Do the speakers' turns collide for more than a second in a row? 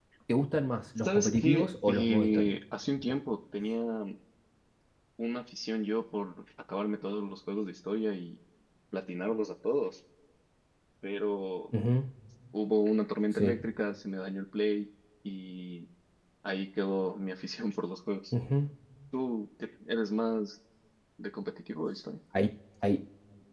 Yes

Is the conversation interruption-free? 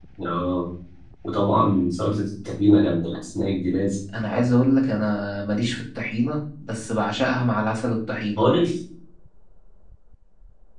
Yes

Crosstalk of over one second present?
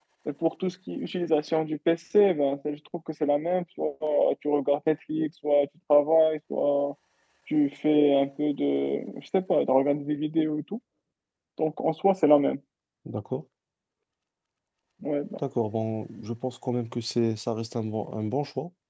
No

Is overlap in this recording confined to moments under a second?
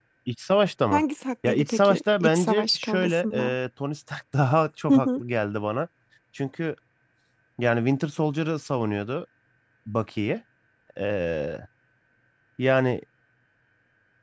No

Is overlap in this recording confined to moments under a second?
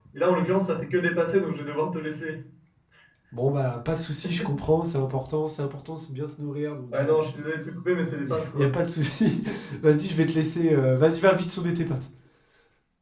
Yes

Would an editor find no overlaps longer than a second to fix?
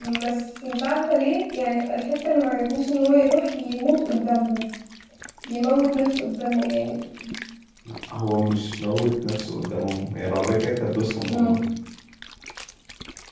Yes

